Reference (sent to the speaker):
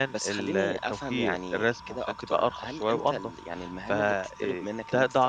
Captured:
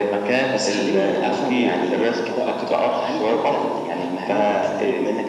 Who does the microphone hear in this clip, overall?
echo only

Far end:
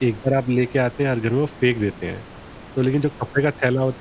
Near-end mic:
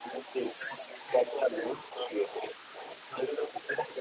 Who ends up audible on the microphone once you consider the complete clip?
echo only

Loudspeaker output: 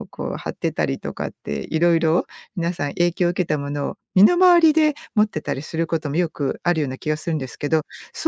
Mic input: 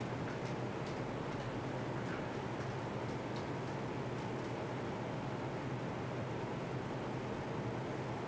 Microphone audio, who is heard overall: neither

